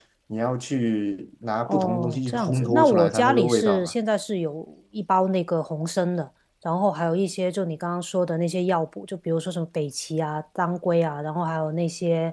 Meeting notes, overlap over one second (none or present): present